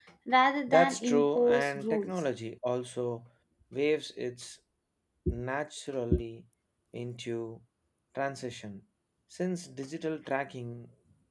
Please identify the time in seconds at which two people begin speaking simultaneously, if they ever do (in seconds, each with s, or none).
0.7 s